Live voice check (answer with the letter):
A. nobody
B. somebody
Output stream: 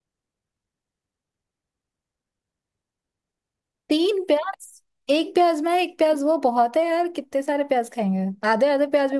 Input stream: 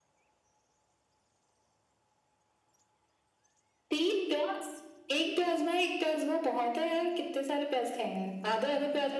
A